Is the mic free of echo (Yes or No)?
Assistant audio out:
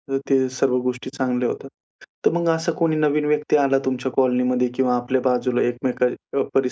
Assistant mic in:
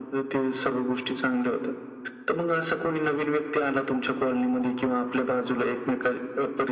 No